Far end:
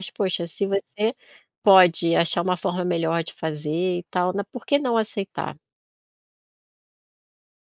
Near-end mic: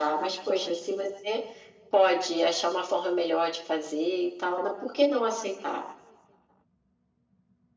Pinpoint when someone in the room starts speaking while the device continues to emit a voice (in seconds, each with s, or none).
none